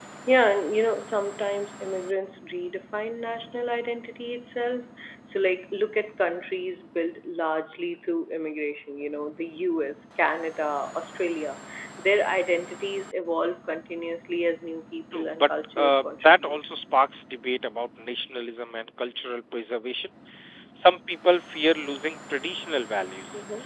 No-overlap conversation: No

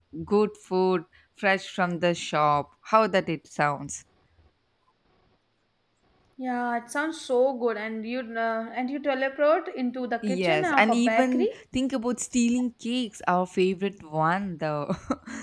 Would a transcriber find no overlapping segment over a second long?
No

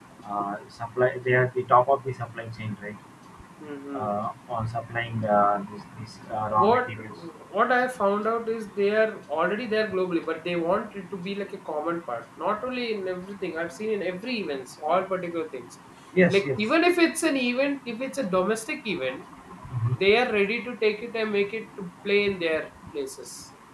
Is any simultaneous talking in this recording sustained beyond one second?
No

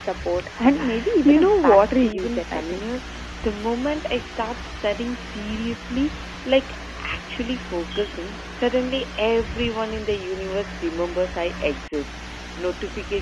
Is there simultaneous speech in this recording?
Yes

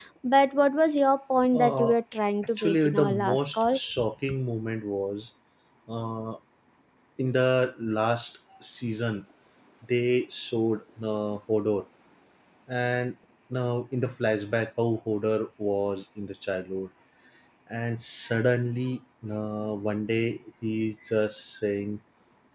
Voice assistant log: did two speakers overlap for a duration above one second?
Yes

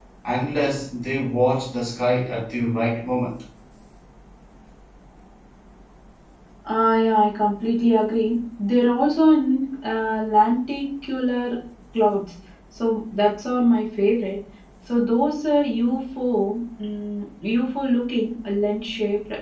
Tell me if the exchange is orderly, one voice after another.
Yes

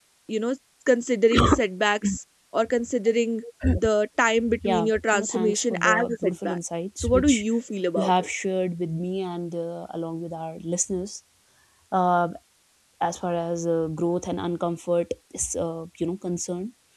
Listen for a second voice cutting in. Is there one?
Yes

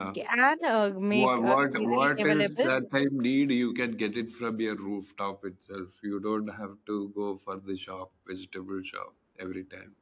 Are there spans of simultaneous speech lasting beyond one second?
Yes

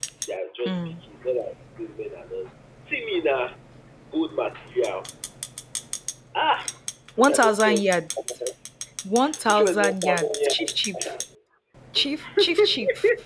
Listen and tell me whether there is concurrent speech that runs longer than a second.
Yes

